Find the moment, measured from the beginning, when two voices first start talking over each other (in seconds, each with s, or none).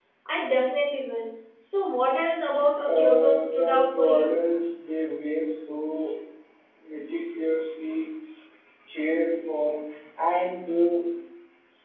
2.9 s